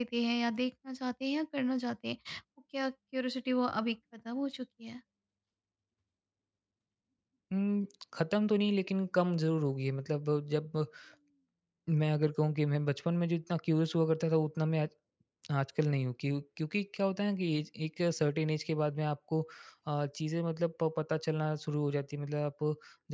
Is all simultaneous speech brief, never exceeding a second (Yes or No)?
Yes